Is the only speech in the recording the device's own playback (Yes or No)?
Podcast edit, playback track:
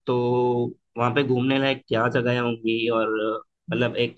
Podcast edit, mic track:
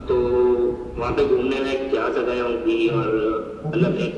No